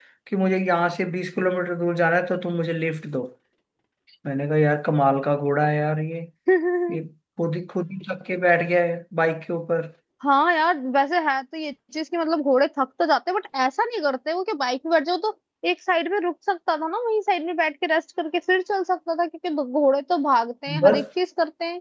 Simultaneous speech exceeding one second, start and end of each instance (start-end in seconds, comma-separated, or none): none